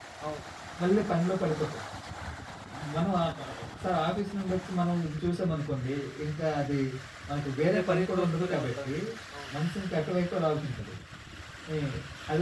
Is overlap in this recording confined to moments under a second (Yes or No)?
No